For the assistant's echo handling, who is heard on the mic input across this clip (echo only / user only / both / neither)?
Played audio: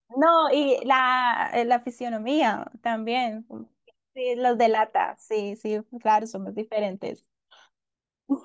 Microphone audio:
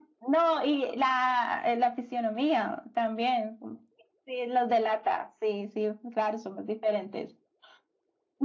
echo only